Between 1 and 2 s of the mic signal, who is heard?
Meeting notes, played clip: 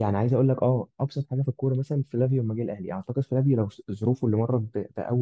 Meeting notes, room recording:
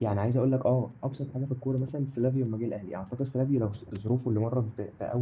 echo only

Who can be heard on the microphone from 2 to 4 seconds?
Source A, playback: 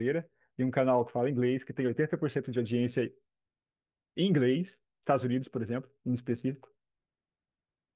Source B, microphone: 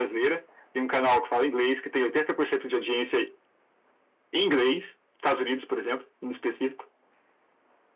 echo only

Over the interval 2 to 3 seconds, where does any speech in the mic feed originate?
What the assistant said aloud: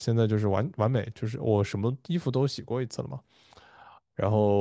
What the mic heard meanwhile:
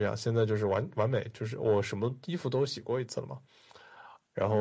echo only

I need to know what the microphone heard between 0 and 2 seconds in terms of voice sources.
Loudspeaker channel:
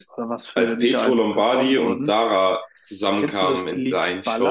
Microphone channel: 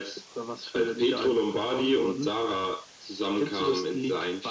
echo only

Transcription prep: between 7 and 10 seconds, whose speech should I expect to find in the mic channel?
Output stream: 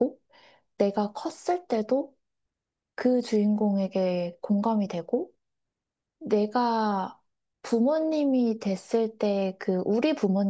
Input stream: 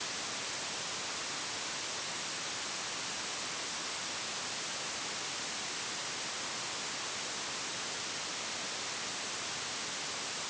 neither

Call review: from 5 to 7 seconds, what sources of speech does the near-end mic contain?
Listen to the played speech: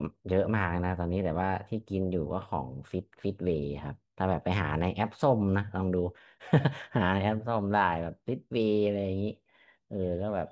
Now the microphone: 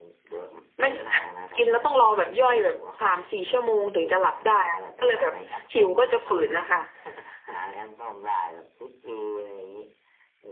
both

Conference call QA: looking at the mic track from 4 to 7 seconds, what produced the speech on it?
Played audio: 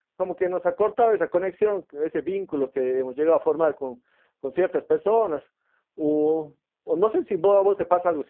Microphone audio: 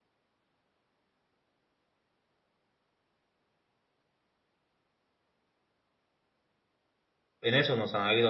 neither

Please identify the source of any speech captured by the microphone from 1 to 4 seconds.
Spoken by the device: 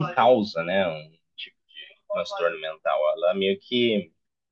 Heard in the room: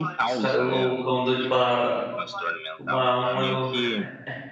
both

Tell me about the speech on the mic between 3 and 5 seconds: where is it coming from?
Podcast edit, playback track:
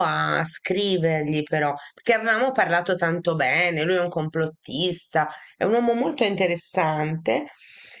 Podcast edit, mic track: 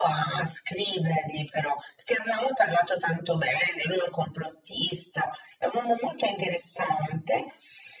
echo only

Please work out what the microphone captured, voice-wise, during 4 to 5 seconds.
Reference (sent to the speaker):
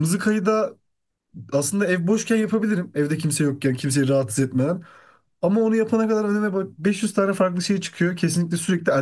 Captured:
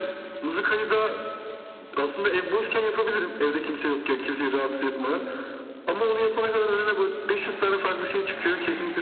echo only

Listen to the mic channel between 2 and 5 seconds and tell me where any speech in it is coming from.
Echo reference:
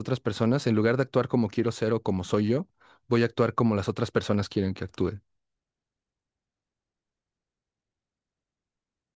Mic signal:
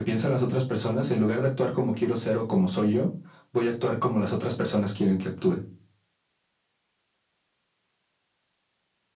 echo only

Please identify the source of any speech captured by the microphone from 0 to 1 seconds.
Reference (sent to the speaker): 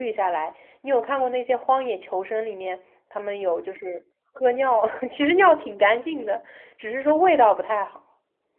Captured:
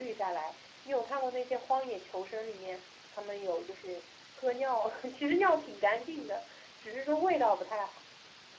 echo only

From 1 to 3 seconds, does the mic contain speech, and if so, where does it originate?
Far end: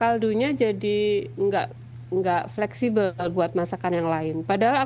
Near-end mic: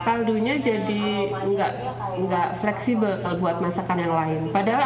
both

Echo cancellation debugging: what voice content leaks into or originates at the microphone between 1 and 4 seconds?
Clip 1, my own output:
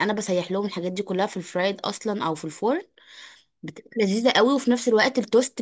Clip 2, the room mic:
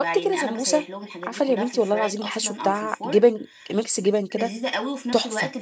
both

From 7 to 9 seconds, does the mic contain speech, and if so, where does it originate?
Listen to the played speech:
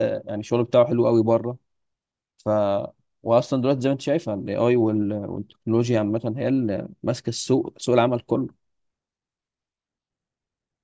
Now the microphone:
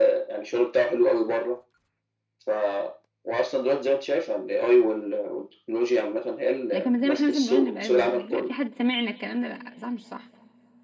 both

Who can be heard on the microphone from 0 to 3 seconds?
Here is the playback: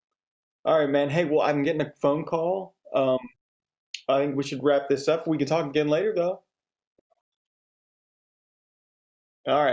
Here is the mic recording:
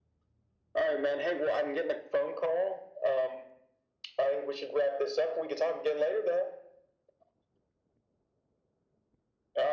echo only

